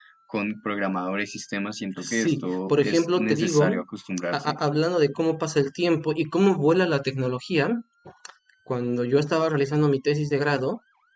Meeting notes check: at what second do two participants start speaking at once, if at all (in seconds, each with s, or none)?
2.0 s